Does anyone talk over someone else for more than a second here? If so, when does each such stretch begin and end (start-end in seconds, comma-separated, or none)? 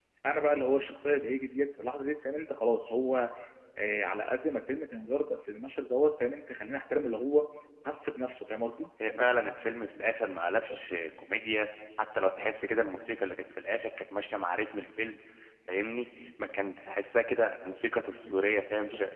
none